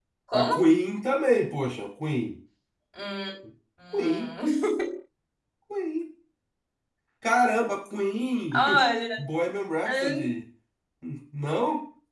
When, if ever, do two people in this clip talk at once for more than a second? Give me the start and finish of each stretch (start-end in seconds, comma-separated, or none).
none